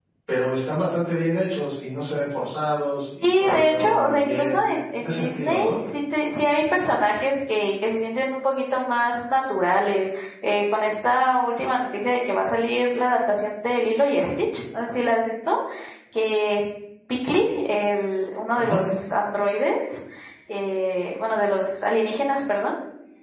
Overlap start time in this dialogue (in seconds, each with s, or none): 3.2 s